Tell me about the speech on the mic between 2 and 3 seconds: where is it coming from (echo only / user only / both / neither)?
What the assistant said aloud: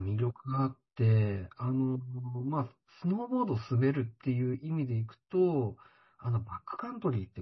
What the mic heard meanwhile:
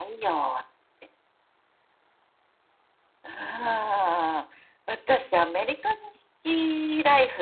neither